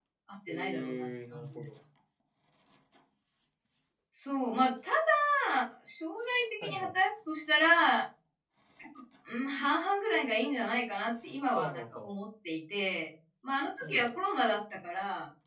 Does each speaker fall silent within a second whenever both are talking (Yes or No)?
No